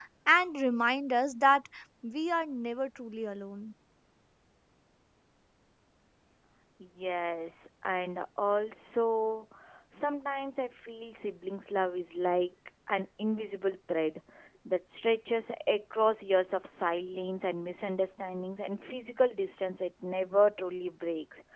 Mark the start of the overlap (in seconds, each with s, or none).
none